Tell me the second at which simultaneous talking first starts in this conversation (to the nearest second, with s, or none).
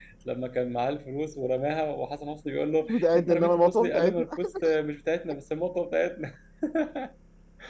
3 s